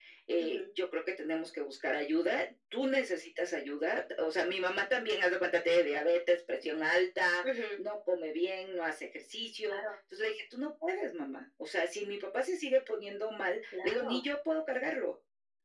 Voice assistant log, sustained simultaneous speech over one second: none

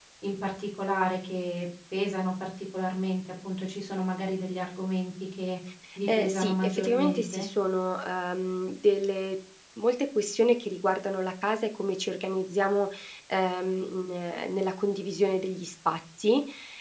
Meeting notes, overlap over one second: present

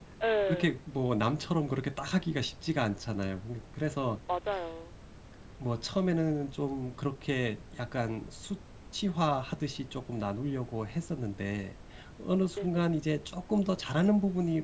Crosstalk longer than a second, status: none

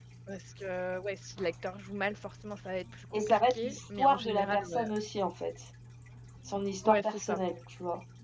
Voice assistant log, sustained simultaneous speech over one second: present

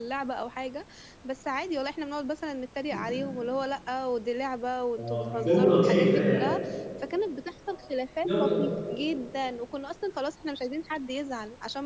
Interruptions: present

